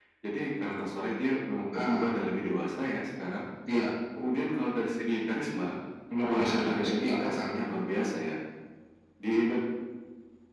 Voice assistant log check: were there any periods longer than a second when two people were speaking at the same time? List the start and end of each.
6.3-7.6

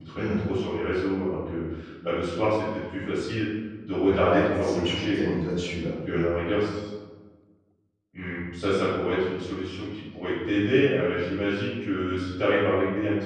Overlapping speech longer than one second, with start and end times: 4.1-5.3

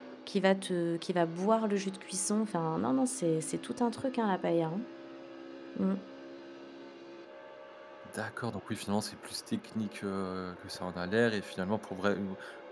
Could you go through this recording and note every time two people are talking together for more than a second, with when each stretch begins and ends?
none

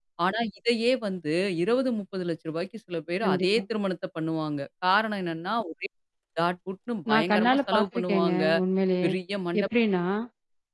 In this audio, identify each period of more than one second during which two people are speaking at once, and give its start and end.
7.1-8.4

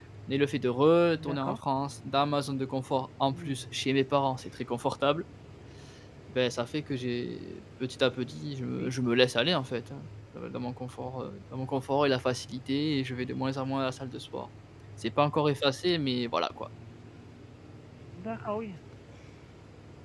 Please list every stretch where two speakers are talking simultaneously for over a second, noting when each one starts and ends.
none

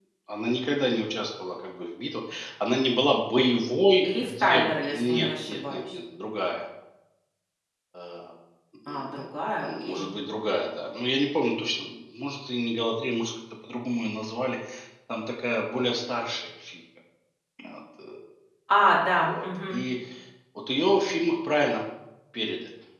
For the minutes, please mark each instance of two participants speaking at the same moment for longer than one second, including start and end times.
4.0-6.0

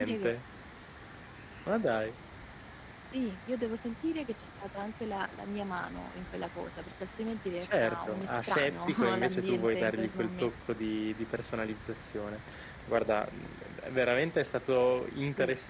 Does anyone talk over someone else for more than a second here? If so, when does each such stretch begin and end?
7.6-10.5

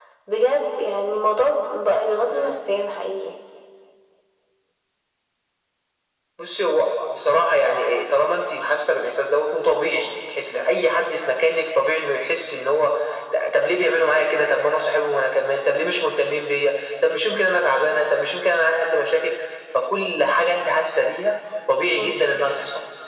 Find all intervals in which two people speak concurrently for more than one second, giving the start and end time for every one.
none

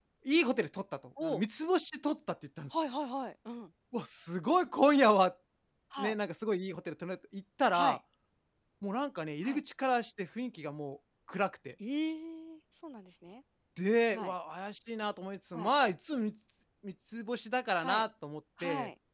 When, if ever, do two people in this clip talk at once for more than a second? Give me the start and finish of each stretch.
none

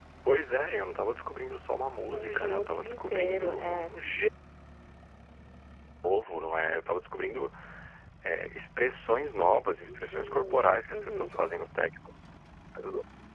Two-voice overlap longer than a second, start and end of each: 2.1-3.9, 9.8-11.4

